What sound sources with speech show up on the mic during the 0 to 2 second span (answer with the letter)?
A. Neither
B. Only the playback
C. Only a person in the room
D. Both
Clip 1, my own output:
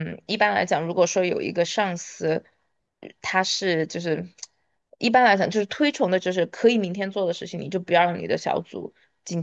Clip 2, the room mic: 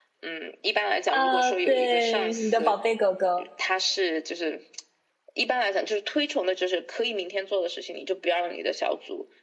D